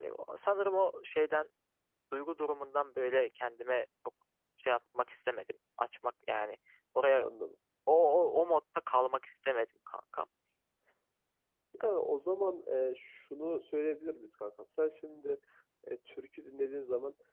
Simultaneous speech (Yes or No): No